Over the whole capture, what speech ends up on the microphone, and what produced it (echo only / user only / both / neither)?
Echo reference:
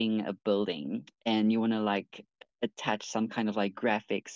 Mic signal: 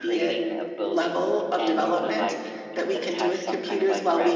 both